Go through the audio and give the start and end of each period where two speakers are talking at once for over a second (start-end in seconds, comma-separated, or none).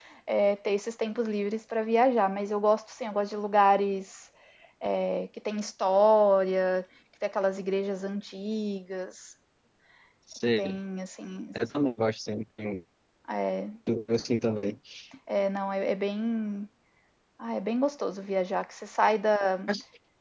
none